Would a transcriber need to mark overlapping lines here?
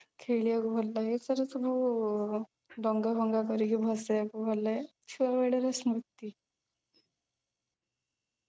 No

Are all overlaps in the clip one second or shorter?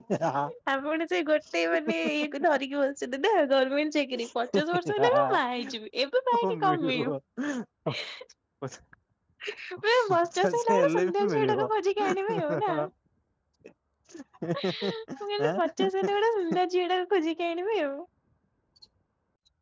No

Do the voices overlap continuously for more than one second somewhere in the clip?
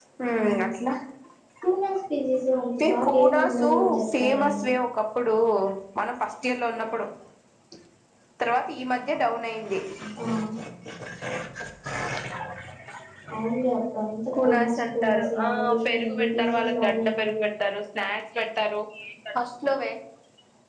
Yes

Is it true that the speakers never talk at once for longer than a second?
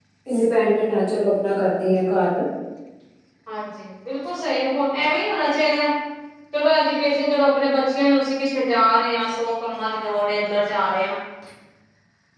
Yes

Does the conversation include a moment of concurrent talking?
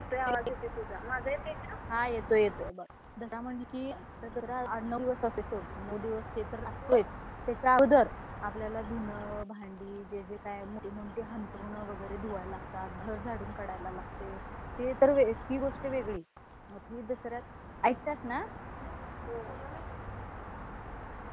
No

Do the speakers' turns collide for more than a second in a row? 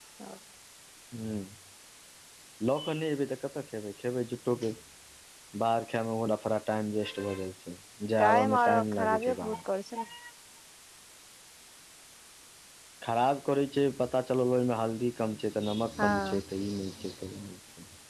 Yes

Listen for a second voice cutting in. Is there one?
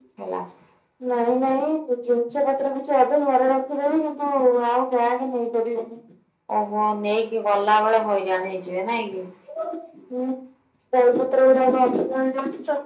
No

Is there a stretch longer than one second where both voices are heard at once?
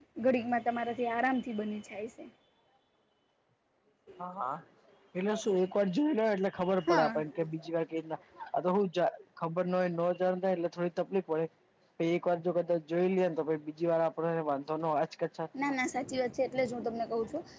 No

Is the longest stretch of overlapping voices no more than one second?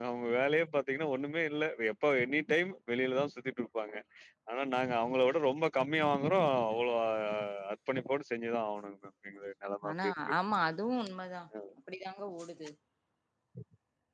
Yes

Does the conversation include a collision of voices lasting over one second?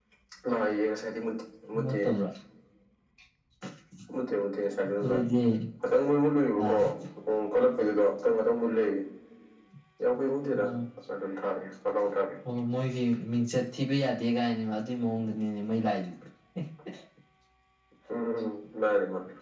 No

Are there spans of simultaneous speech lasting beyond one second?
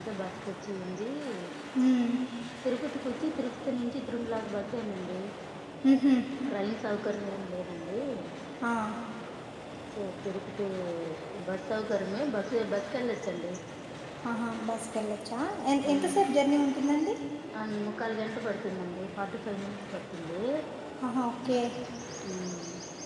No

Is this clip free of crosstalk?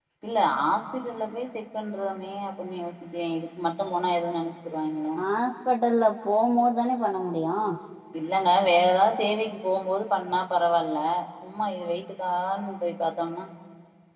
Yes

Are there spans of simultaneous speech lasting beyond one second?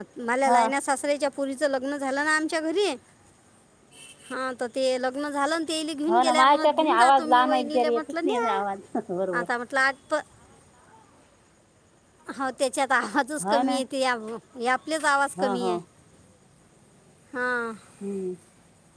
Yes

